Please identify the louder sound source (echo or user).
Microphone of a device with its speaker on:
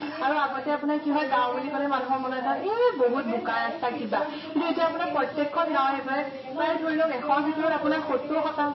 echo